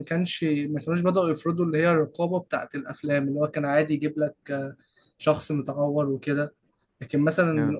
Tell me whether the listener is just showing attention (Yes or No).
Yes